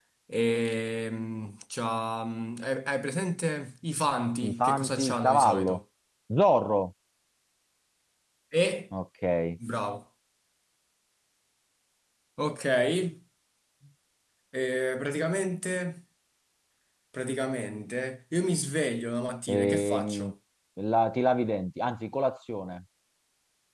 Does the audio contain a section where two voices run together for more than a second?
Yes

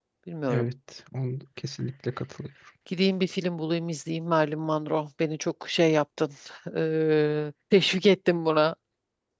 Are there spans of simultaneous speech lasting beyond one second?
No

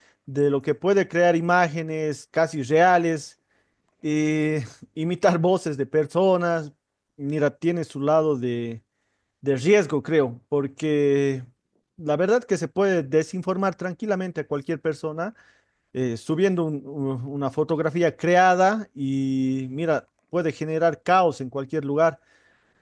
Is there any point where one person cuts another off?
No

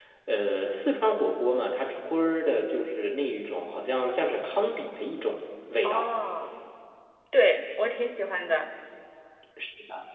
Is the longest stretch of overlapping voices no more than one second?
Yes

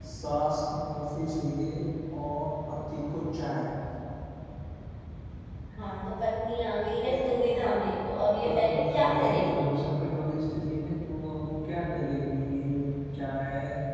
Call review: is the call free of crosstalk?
No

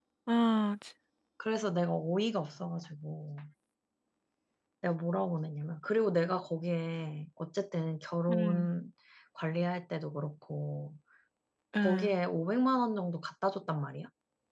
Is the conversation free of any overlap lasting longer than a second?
Yes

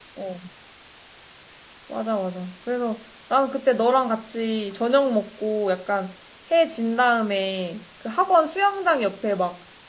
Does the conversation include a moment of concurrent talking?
No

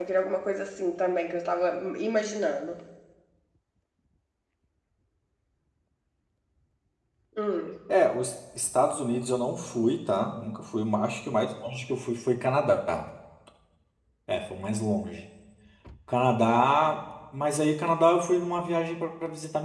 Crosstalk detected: No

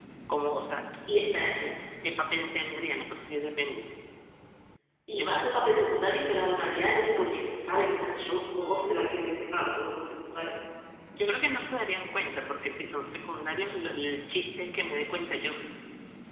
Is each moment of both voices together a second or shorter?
Yes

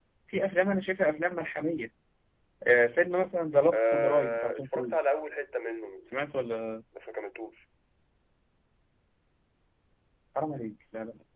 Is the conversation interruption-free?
No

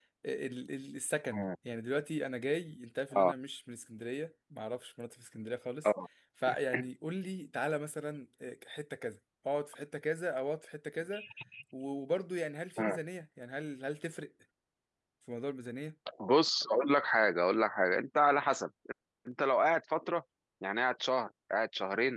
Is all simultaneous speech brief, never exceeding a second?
Yes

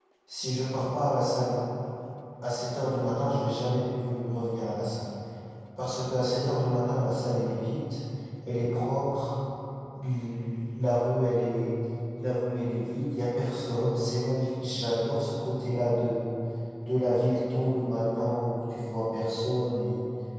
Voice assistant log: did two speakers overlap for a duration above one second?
No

